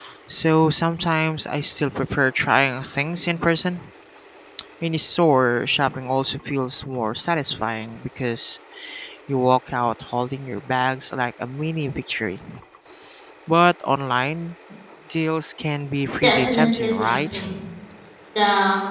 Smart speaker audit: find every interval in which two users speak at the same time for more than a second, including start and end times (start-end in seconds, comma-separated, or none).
16.2-17.4